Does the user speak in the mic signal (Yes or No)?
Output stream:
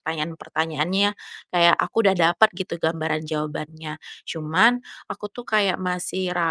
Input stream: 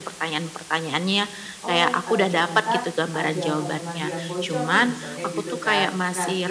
Yes